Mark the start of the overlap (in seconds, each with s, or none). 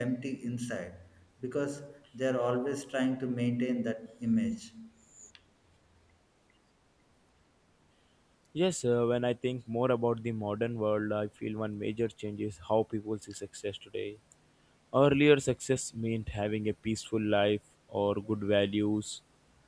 none